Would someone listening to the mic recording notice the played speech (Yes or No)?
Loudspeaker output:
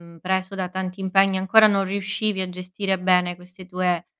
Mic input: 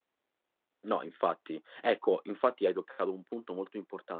No